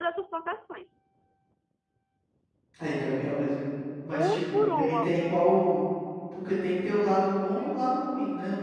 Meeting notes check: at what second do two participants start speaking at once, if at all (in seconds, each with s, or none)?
4.1 s